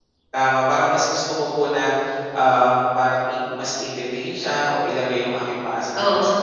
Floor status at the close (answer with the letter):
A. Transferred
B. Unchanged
B